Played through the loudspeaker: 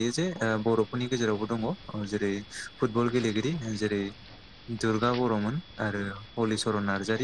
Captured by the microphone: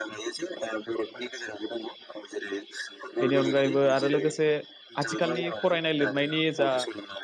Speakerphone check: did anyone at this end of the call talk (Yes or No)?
Yes